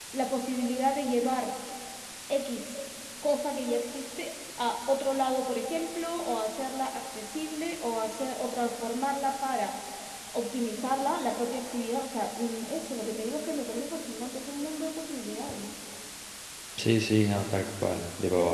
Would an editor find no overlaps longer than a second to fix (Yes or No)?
Yes